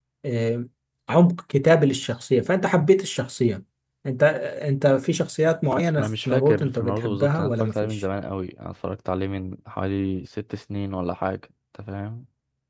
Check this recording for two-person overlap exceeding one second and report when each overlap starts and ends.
6.0-8.0

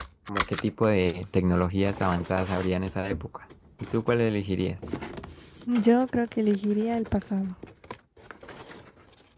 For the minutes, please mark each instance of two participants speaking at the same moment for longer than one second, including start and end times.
none

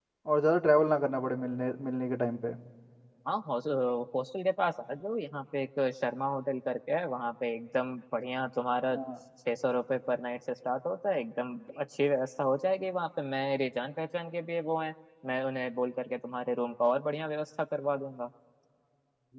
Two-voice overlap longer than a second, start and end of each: none

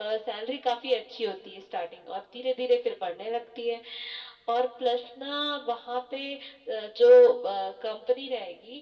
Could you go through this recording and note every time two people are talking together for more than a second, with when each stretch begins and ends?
none

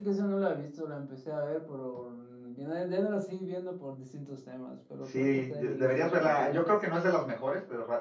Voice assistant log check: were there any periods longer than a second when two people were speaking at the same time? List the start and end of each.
5.1-6.8

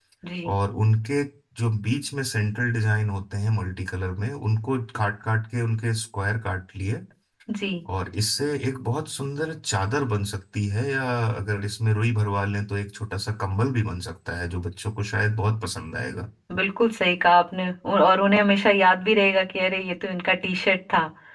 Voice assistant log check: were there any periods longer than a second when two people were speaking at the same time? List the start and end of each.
none

